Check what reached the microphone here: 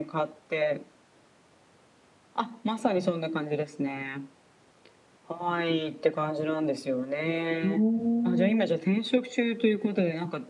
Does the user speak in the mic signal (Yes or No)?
Yes